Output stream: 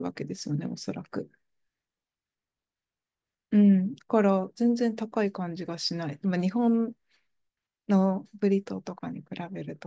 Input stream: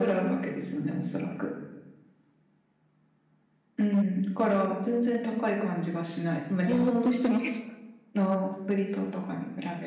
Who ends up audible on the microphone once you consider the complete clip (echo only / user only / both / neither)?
both